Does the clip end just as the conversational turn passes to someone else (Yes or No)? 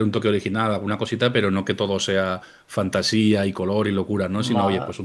No